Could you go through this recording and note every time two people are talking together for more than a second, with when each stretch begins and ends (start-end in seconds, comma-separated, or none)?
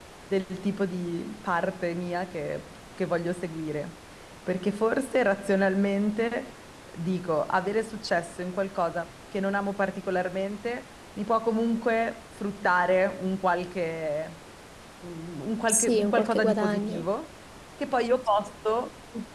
15.7-17.1